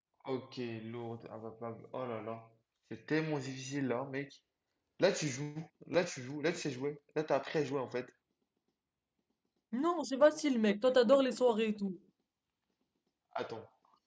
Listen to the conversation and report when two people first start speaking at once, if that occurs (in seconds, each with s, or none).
none